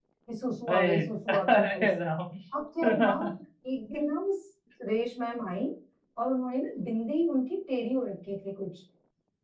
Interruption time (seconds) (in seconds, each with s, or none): 0.7 s